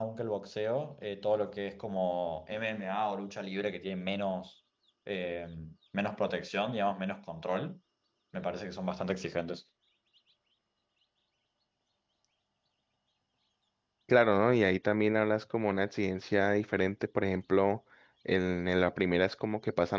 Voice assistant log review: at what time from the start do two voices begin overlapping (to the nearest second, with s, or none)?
none